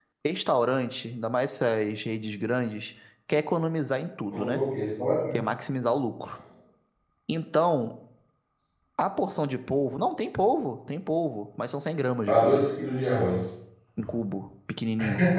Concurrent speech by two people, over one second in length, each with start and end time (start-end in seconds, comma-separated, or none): none